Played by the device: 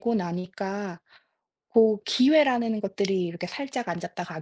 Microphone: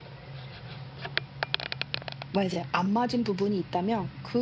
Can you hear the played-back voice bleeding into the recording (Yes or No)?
No